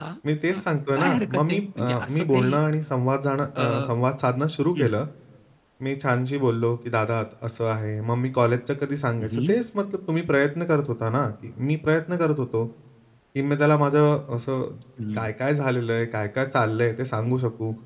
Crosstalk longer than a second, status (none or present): present